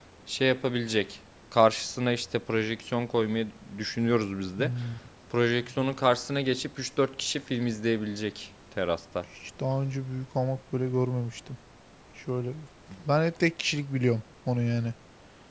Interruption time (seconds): none

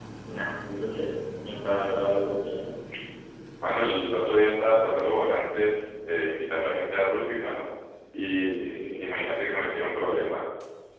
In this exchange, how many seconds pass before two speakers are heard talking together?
none

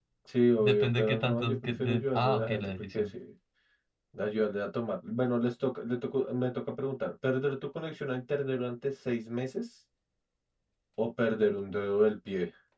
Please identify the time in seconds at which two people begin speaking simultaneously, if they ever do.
1 s

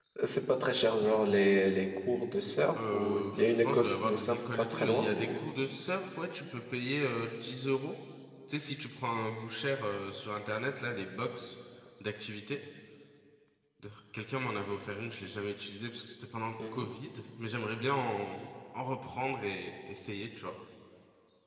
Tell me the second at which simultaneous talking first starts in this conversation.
3 s

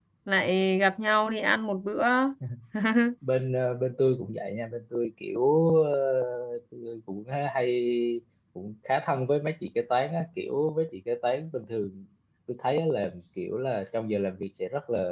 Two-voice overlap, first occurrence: none

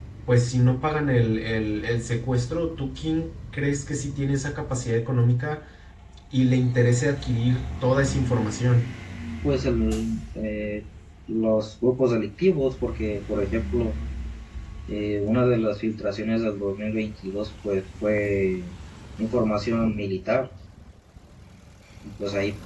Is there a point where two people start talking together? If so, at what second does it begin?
none

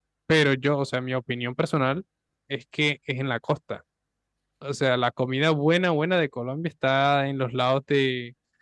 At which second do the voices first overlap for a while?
none

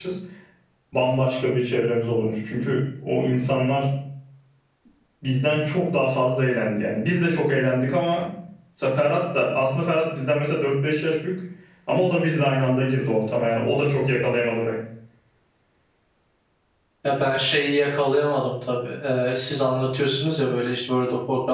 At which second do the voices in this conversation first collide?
none

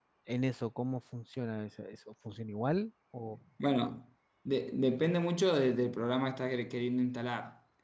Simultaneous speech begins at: none

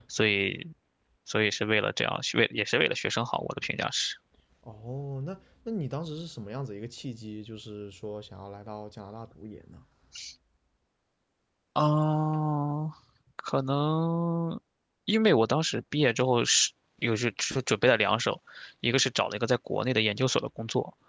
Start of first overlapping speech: none

